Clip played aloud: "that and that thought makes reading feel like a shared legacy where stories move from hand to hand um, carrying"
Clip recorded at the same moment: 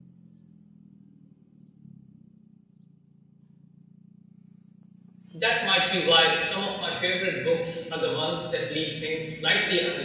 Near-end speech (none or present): present